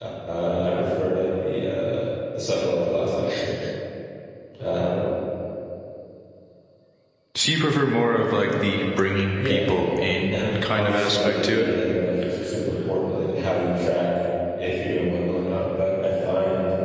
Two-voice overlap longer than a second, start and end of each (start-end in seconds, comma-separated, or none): 10.3-11.7